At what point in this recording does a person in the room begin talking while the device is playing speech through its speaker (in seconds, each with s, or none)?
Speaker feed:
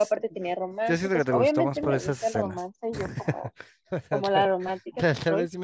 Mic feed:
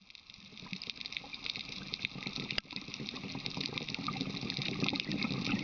none